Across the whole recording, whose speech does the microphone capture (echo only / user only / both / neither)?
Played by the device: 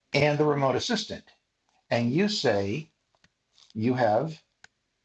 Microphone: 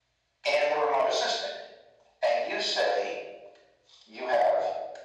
echo only